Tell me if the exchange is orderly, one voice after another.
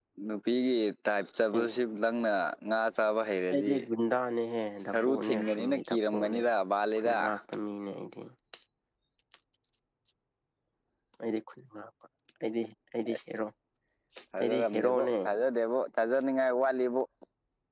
No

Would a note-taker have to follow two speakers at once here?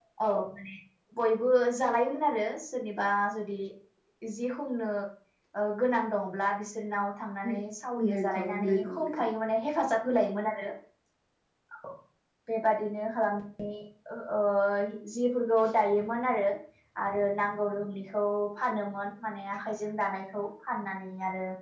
Yes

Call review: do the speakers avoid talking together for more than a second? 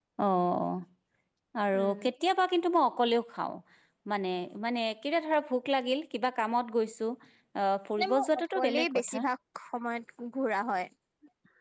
No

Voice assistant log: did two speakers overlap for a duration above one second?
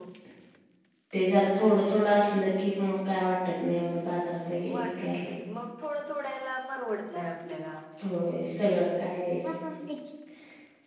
No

